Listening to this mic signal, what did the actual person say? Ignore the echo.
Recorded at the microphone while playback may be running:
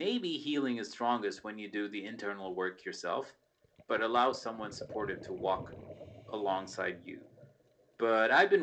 none

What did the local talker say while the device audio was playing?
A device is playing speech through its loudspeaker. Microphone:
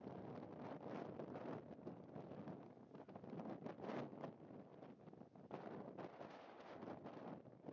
none

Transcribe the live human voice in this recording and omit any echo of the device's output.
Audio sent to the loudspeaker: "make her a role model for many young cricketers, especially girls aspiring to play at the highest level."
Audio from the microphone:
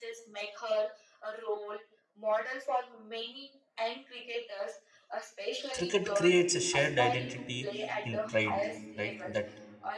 Cricket creates a shared identity in pride, right? That

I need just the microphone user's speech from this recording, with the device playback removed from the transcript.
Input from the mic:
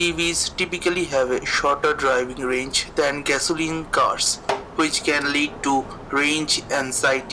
none

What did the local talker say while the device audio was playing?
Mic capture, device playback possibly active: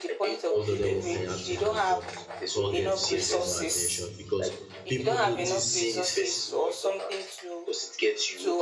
both of them working hand in hand, but confidence gets the more attention because people notice

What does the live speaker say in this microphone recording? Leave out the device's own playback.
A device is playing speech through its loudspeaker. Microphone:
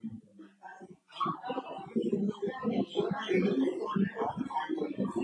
none

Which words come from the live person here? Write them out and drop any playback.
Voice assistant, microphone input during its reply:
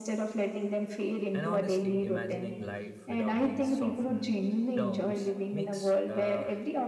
And honestly, imagining life without these softened terms makes uh,

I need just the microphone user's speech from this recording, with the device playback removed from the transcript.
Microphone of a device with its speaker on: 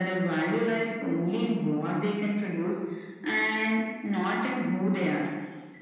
none

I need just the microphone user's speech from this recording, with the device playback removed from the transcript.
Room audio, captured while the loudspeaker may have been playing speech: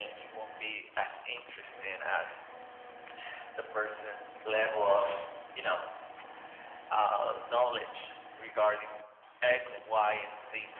none

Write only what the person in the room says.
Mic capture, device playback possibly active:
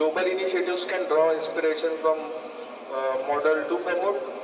none

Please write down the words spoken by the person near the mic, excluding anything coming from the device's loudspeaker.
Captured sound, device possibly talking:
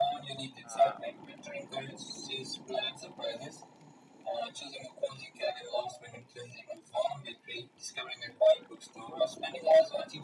Uh,

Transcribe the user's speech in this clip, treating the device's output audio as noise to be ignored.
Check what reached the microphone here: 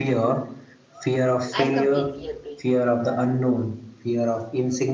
I completely agree.

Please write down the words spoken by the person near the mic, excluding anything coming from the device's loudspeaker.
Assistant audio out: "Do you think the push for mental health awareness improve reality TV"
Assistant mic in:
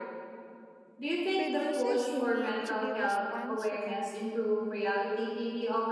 Producers need to be responsible.

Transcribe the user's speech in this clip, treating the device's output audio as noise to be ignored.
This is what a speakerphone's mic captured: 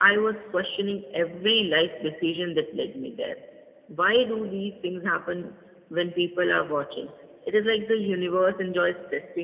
none

